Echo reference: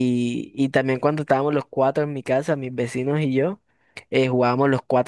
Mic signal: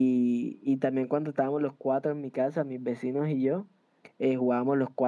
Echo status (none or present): present